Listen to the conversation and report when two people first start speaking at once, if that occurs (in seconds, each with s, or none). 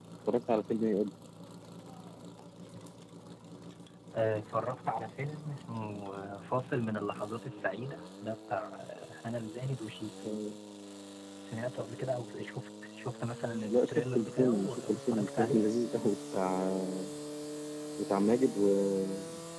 13.6 s